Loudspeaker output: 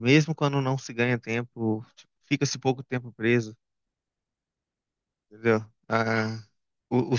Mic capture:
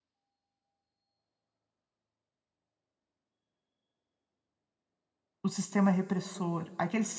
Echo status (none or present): none